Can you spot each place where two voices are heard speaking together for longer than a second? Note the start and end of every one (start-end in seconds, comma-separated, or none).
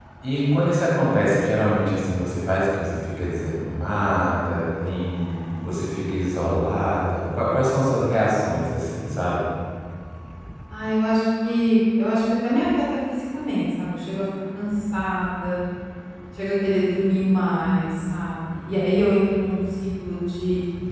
none